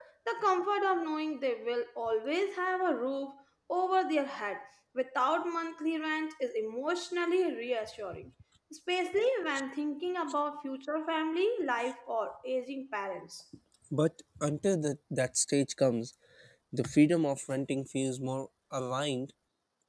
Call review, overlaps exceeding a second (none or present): none